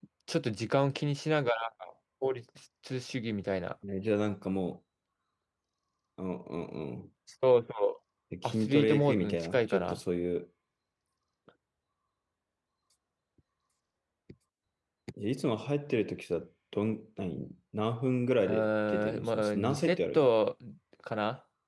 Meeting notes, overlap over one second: present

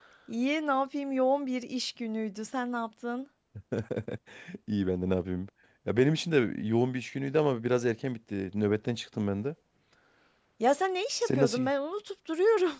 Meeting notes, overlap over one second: none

